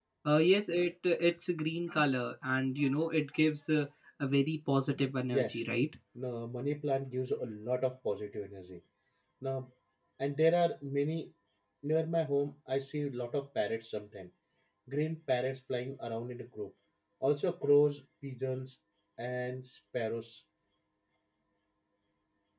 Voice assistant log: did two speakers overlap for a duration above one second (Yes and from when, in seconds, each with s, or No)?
No